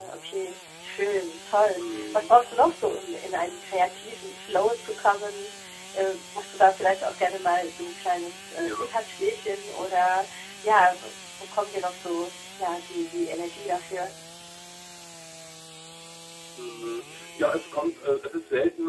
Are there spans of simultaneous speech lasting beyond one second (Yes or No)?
No